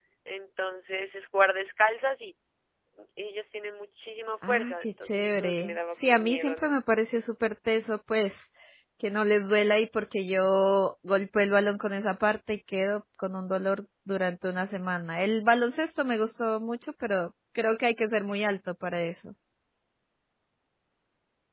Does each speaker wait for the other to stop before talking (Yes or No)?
No